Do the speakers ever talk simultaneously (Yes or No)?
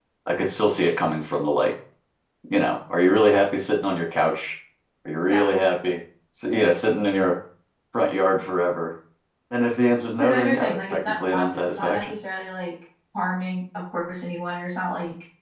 Yes